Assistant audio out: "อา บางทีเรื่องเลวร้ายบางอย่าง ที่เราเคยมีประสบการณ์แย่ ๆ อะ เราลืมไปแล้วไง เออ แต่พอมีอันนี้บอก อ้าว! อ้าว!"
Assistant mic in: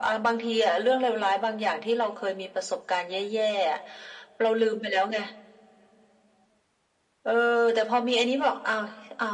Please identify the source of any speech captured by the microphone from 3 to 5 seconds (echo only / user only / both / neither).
echo only